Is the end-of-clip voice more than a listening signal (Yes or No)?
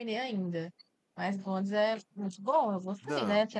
No